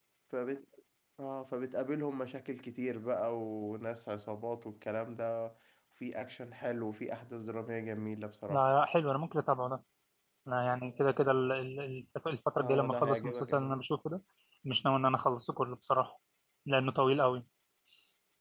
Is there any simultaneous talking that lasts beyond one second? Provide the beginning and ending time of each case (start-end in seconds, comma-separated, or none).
12.6-13.8